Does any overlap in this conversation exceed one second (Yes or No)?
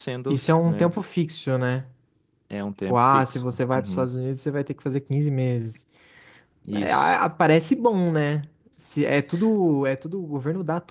Yes